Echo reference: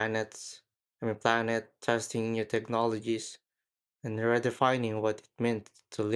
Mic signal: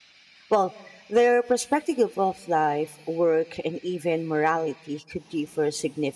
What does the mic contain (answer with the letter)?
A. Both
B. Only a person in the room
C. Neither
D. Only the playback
B